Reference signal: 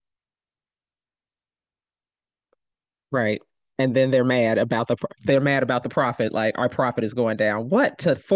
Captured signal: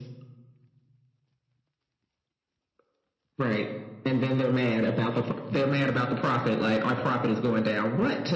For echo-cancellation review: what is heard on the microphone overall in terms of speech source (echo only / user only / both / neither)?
echo only